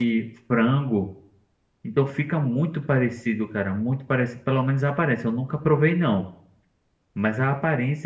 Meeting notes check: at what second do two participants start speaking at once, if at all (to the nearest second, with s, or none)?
none